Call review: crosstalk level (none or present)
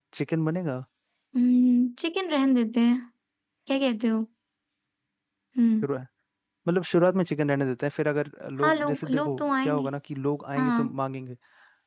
present